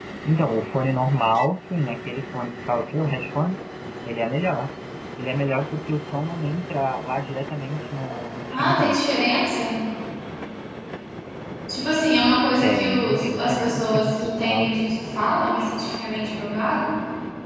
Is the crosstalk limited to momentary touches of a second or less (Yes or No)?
No